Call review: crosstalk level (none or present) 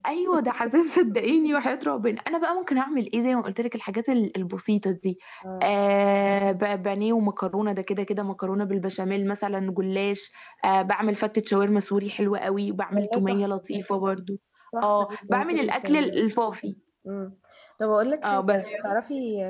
present